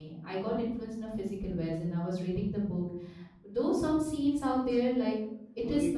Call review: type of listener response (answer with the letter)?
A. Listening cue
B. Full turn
A